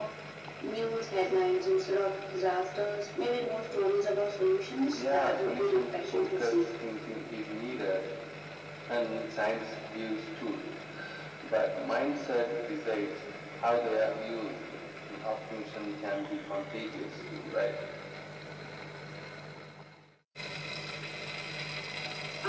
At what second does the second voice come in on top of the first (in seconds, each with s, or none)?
4.9 s